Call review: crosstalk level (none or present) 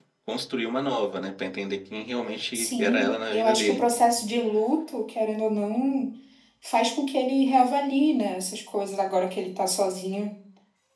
present